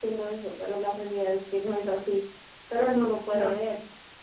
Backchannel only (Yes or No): Yes